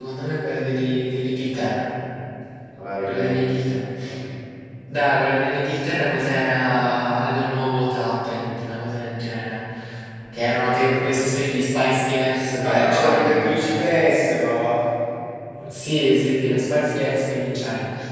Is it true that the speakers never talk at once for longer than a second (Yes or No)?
No